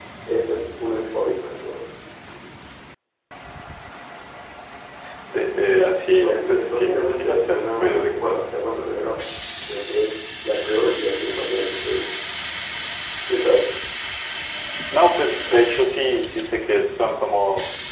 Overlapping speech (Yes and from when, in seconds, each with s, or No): Yes, from 6.2 s